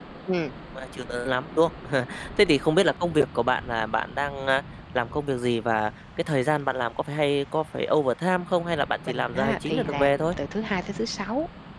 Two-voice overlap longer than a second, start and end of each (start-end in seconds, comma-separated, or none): 9.1-10.3